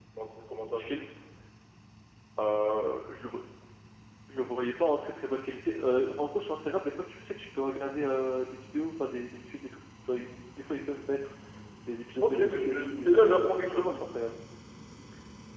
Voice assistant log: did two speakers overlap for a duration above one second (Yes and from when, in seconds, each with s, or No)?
Yes, from 12.2 s